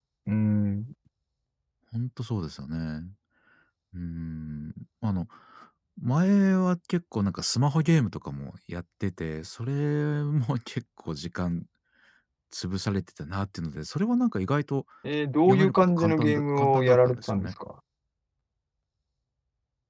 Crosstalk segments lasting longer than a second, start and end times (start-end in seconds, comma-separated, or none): 15.5-17.5